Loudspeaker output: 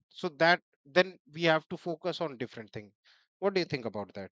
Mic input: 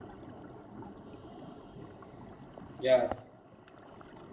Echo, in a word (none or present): none